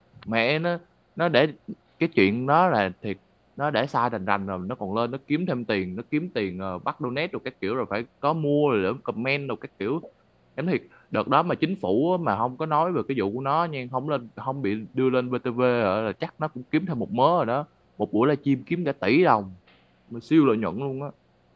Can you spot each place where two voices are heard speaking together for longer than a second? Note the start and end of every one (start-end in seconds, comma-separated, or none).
none